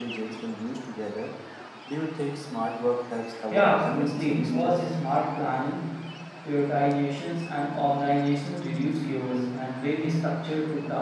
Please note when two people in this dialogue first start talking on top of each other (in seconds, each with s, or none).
3.5 s